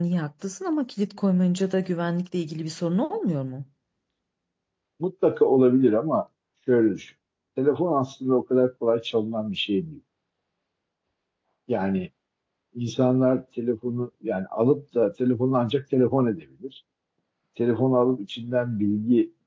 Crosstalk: none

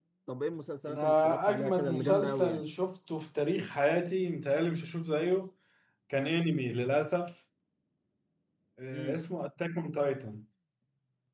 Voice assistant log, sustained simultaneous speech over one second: present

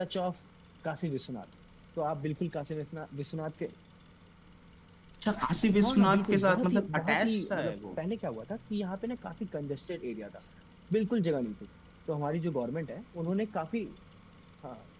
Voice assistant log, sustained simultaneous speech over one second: present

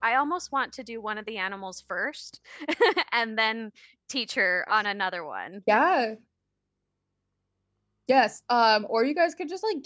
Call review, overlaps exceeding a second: none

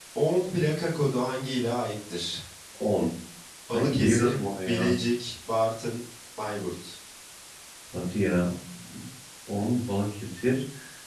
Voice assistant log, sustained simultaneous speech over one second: present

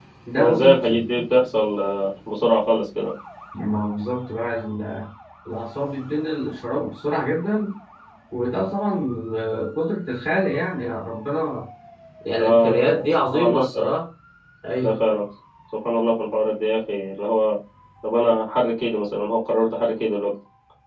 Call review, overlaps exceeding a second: present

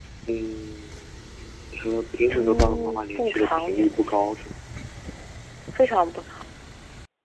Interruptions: present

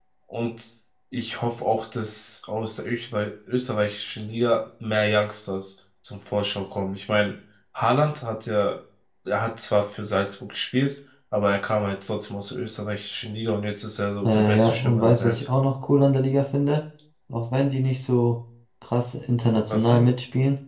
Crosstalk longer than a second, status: present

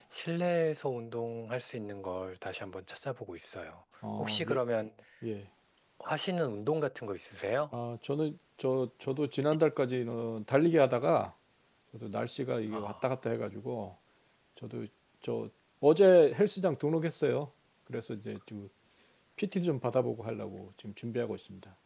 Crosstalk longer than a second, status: none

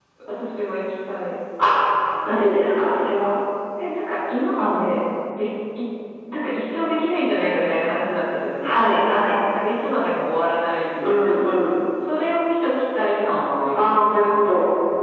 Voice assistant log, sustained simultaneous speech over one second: none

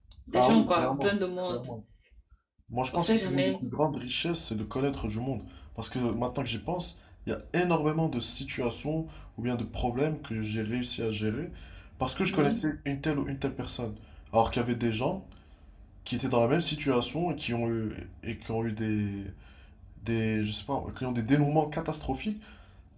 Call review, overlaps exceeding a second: present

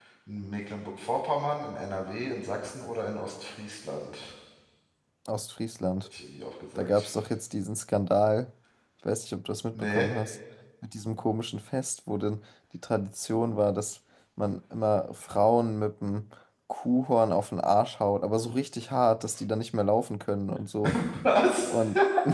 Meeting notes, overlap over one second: none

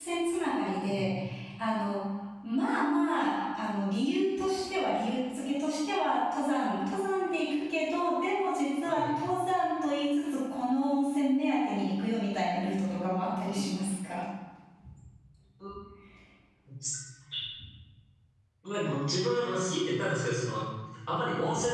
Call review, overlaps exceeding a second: none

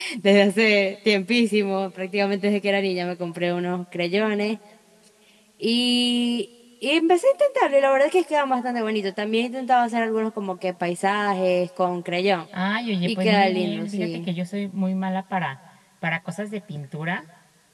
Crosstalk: present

